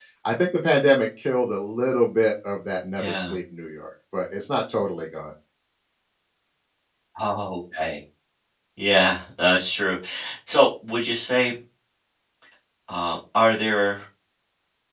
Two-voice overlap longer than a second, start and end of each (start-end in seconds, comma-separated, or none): none